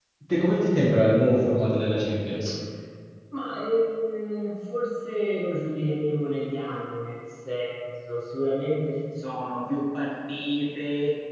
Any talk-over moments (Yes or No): No